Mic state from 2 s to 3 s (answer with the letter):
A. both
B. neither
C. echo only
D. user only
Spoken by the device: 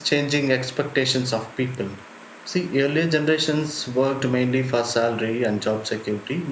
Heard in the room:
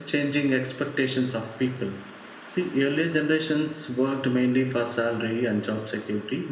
C